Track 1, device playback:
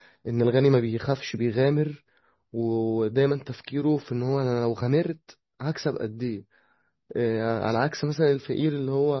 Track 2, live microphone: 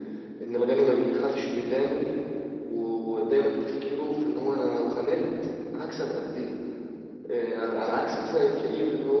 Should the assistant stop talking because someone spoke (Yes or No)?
No